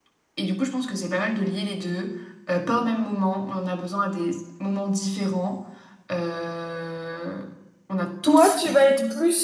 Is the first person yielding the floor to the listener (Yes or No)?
Yes